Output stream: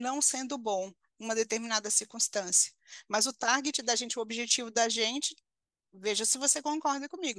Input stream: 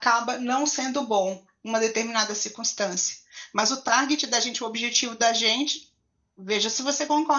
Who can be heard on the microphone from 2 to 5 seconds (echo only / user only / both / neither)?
echo only